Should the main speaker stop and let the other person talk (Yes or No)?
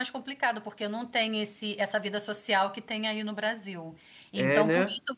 No